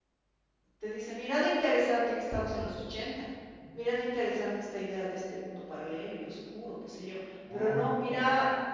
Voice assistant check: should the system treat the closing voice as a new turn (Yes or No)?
No